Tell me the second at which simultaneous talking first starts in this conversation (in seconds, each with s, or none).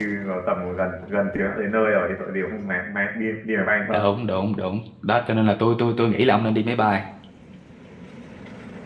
none